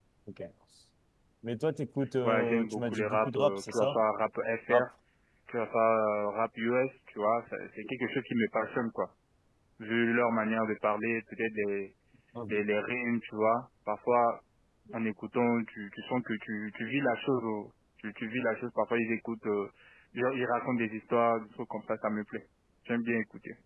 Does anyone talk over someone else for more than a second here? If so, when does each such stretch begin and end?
2.2-4.0

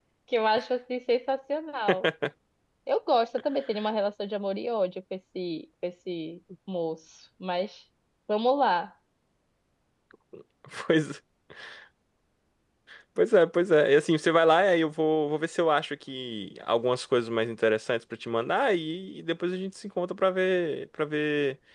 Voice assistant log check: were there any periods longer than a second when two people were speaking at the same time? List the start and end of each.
none

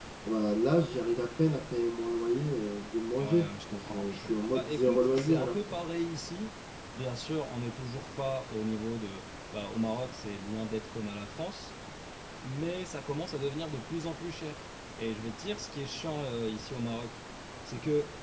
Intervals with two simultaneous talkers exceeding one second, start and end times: 3.2-5.6

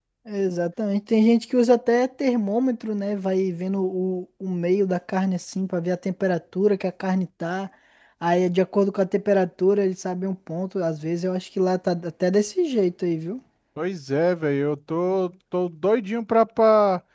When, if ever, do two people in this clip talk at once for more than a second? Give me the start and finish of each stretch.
none

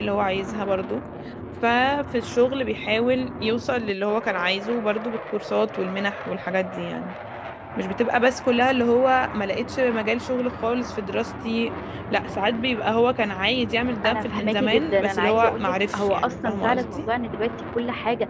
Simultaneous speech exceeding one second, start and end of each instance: 14.0-17.1

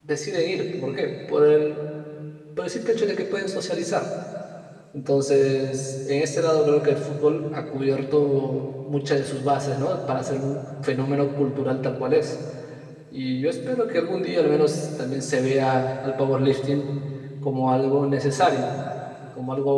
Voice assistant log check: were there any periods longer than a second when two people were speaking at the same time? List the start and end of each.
none

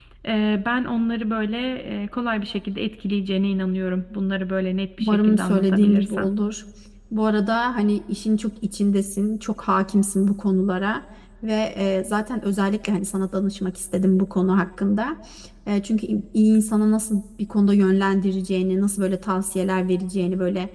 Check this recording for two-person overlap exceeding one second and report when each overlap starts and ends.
5.0-6.3

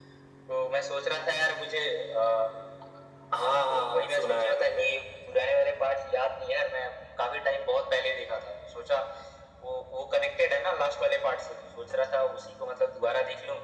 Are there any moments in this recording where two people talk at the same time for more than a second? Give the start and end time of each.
3.4-4.9

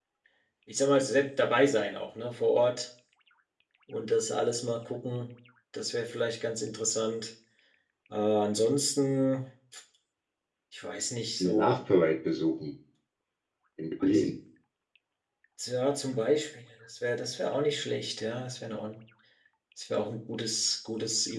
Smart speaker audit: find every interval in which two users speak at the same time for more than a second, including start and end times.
none

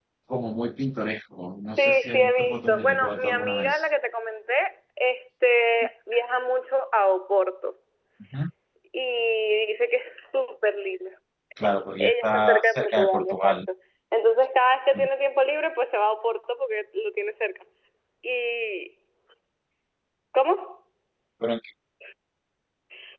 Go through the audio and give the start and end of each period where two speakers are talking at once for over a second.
1.8-3.8, 12.0-13.6

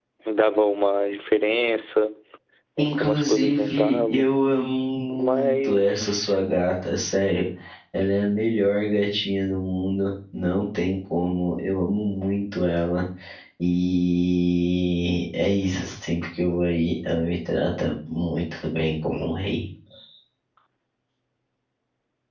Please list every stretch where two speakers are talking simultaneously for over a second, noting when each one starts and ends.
2.8-4.3, 5.1-6.3

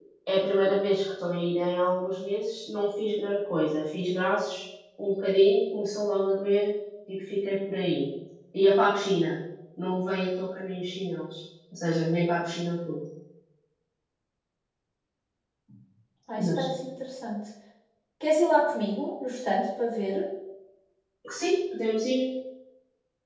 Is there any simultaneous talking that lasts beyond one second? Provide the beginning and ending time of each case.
none

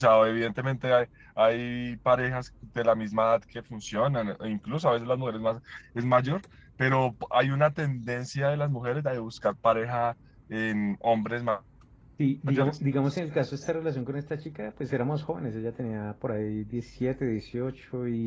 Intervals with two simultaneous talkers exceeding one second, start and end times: none

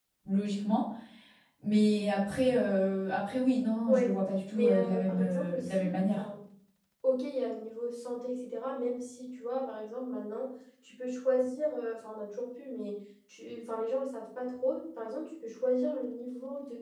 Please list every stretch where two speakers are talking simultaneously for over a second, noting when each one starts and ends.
4.5-6.2

